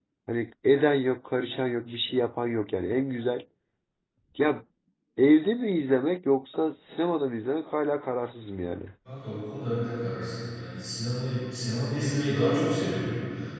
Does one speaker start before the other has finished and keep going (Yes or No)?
No